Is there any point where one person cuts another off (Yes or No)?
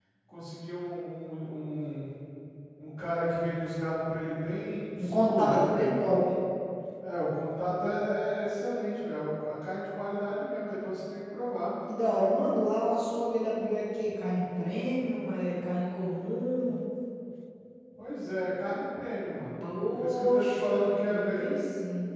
Yes